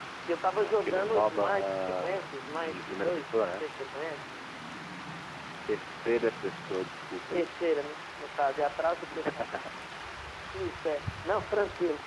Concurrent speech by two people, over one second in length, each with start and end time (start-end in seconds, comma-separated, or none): 0.6-3.6